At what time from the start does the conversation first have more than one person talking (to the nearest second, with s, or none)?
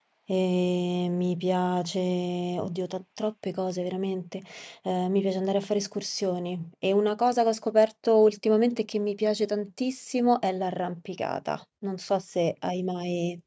none